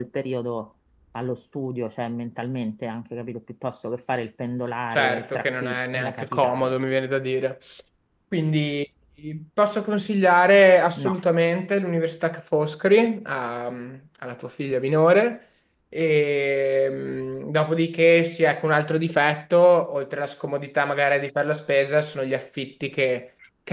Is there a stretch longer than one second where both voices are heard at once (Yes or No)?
Yes